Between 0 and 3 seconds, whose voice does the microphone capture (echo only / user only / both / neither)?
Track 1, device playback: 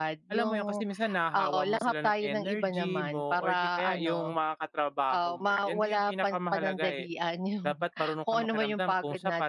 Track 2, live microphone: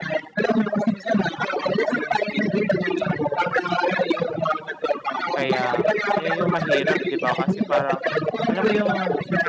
echo only